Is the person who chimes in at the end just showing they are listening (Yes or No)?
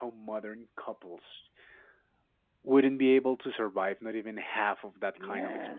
No